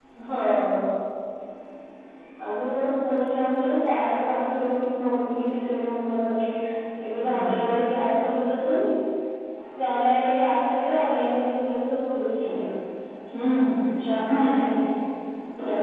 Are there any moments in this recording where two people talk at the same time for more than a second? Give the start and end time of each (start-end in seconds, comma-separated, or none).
none